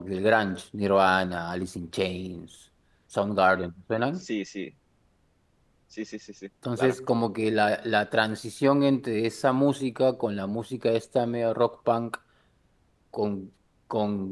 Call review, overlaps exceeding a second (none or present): none